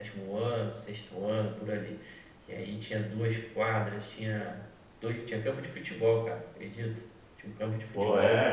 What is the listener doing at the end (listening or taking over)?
taking over